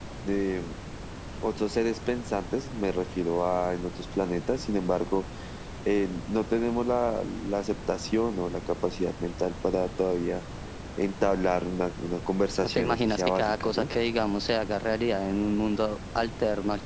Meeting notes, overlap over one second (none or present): present